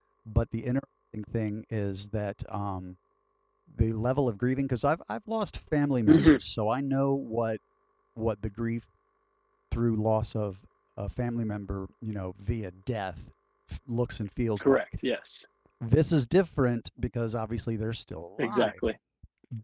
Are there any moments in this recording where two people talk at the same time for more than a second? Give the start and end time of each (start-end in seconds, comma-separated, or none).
none